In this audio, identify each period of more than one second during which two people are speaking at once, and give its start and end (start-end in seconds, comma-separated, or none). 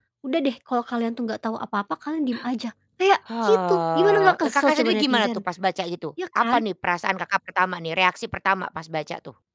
3.4-5.3